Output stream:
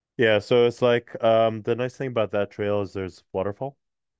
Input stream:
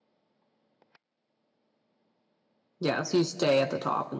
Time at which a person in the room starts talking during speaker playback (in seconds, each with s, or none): 2.8 s